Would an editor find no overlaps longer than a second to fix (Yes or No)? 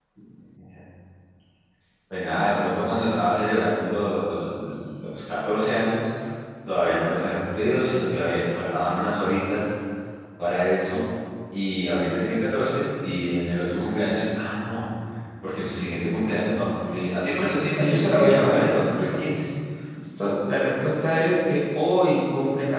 No